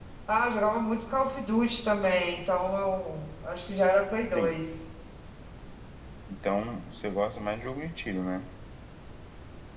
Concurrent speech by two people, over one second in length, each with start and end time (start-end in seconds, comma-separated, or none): none